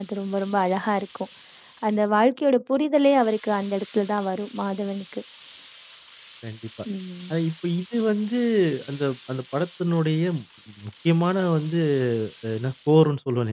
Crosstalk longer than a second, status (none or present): none